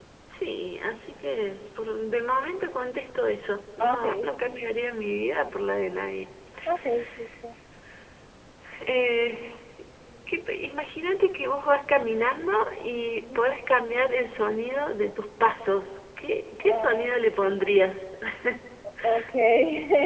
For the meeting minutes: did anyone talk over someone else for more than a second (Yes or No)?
No